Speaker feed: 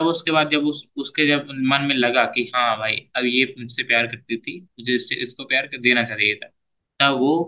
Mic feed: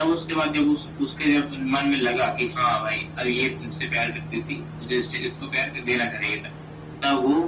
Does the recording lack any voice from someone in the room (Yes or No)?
Yes